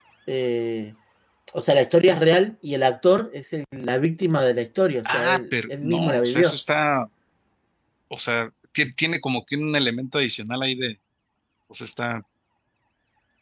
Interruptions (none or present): present